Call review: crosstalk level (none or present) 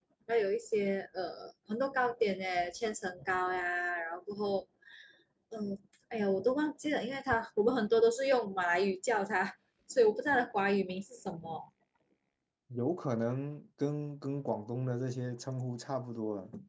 none